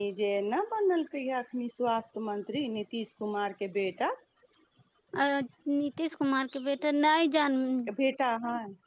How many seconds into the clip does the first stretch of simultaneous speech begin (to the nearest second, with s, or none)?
none